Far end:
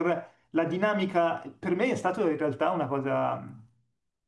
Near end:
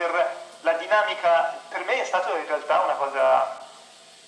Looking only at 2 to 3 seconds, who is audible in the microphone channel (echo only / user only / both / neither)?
echo only